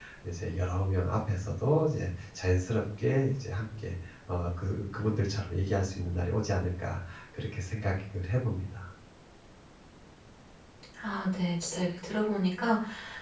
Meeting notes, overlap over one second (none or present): none